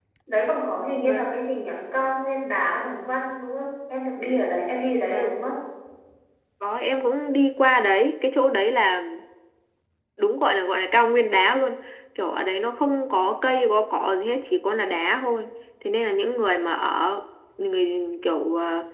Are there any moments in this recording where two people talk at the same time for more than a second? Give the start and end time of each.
none

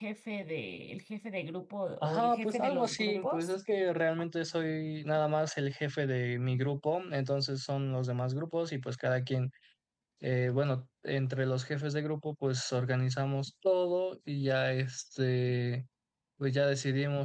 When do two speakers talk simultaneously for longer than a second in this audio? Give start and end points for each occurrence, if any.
2.0-3.5

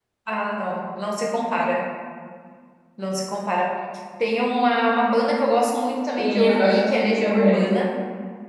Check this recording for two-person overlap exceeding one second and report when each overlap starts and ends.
6.2-7.7

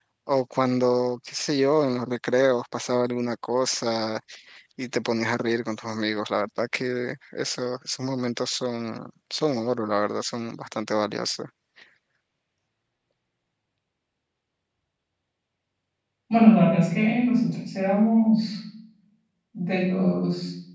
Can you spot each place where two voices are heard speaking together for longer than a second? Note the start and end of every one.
none

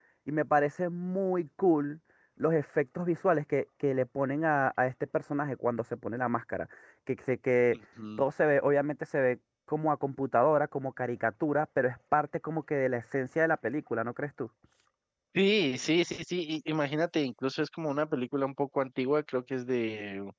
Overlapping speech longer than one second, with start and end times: none

